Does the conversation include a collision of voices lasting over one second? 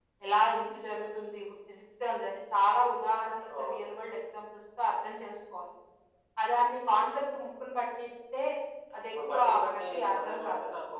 Yes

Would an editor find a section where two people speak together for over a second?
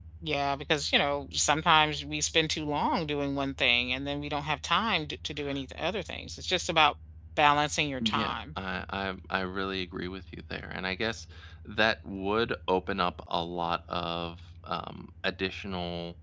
No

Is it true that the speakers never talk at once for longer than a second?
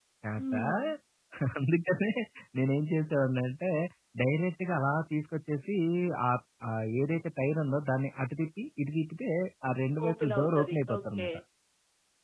No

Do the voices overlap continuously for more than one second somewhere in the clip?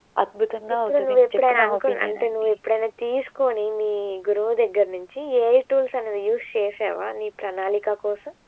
Yes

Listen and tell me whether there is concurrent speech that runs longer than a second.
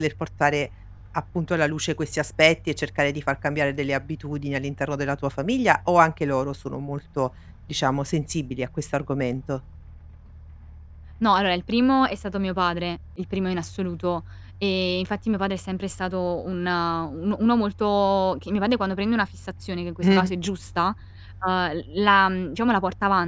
No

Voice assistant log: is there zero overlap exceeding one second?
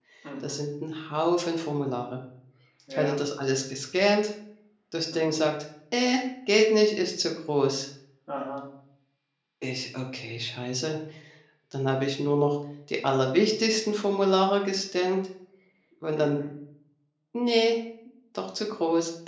Yes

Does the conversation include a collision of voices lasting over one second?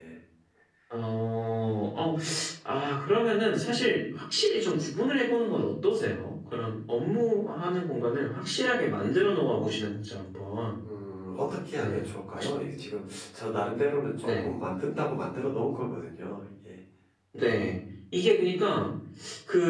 No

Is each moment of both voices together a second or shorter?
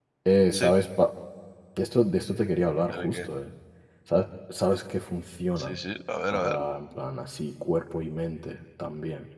Yes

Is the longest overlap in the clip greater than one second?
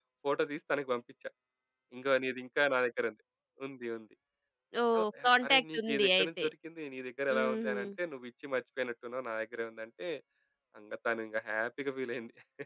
Yes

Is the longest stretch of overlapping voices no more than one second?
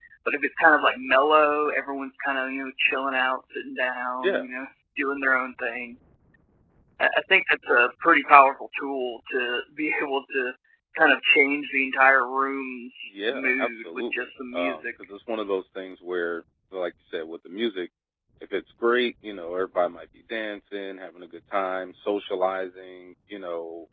No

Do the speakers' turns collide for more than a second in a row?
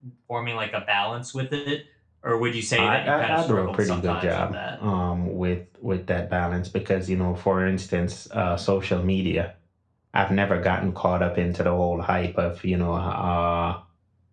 Yes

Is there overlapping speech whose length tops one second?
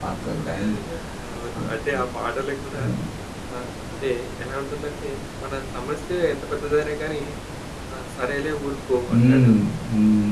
No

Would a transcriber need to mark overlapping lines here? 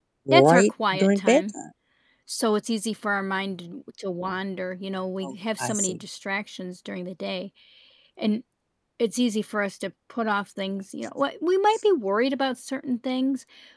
Yes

